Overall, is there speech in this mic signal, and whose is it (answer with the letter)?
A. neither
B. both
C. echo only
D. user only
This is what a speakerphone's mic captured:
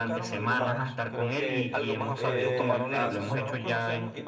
B